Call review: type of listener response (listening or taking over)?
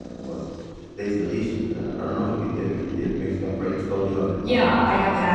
taking over